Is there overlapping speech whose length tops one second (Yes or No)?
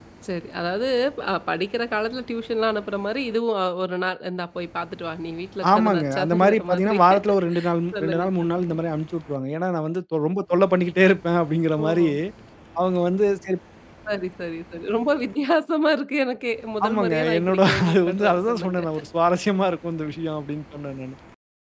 Yes